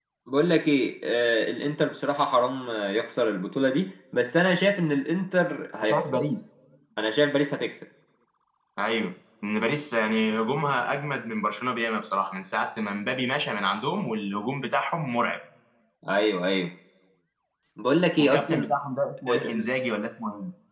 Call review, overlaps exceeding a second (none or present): none